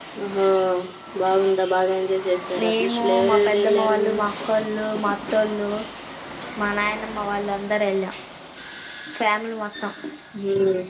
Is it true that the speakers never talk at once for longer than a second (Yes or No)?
No